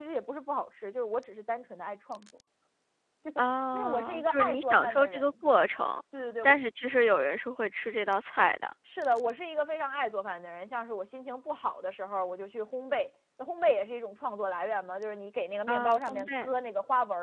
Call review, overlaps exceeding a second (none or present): present